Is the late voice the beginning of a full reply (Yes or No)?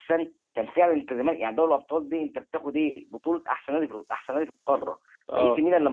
No